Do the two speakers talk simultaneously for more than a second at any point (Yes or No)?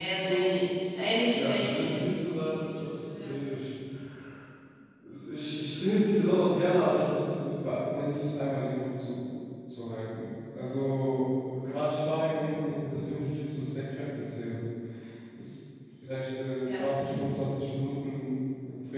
Yes